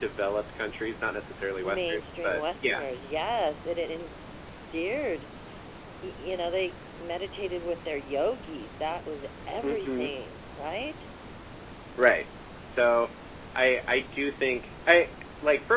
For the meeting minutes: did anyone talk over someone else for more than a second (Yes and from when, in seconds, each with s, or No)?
Yes, from 1.6 s